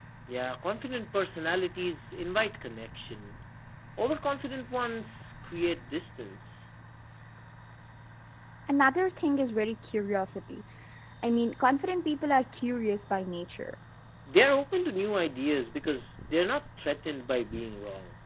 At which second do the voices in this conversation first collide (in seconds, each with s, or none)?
none